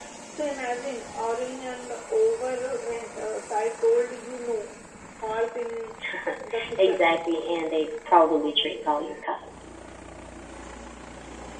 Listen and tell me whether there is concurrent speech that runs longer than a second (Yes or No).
No